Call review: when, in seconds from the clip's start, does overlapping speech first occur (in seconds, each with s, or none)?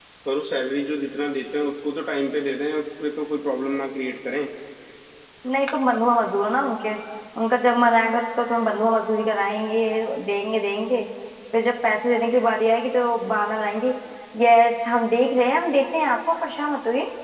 none